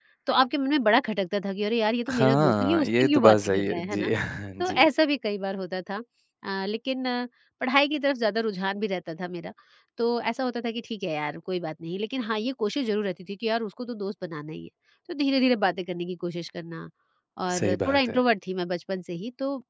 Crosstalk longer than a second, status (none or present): present